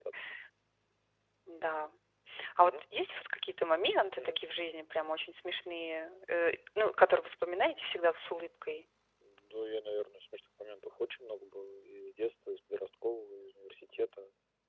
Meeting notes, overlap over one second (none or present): none